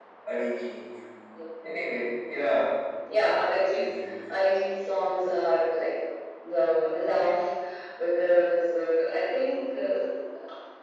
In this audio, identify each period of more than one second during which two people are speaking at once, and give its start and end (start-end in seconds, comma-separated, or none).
none